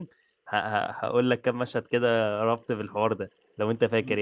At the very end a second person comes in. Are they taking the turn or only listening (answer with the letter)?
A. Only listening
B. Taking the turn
B